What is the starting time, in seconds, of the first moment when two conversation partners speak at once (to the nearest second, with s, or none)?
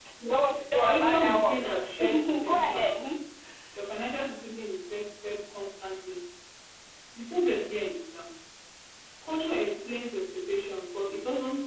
1 s